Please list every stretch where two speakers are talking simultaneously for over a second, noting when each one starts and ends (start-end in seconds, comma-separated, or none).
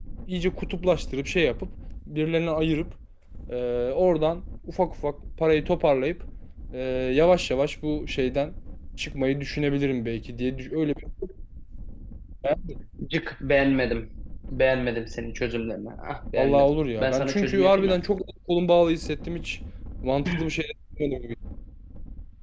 16.4-18.0